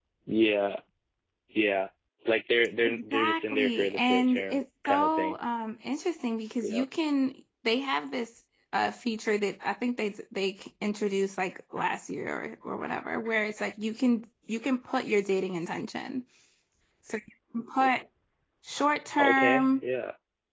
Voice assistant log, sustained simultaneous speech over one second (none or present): present